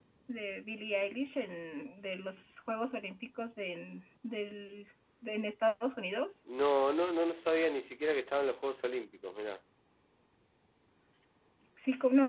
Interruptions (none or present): none